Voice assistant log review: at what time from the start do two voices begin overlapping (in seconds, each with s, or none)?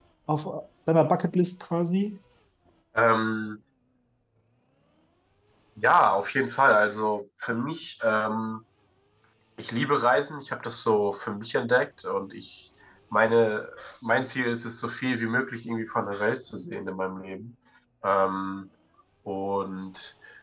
none